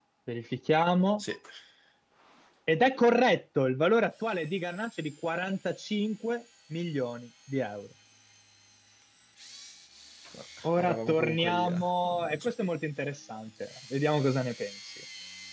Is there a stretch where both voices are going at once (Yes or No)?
Yes